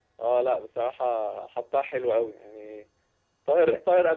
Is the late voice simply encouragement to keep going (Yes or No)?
Yes